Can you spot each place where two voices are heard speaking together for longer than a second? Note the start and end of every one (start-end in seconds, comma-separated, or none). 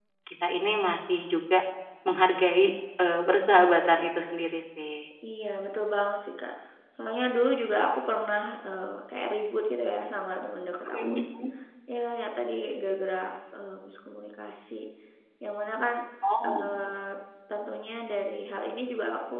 none